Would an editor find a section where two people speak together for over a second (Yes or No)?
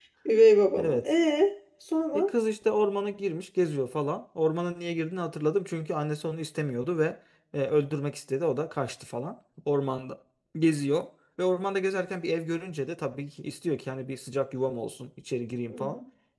No